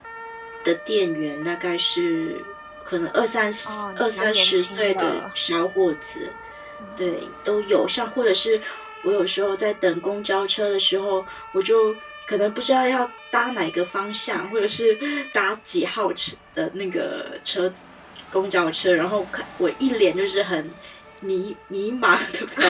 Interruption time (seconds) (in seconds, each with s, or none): 3.7 s